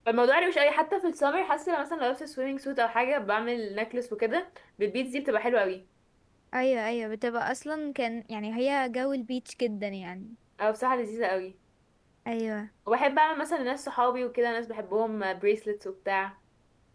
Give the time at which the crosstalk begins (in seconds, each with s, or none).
none